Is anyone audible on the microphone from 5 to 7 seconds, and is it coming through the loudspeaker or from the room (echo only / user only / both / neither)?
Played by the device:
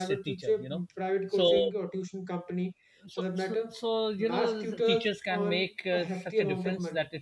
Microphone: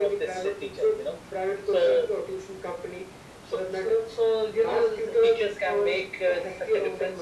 echo only